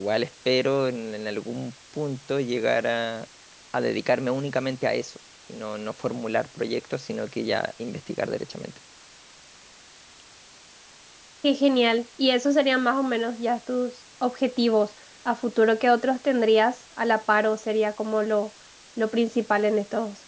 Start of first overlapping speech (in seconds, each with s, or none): none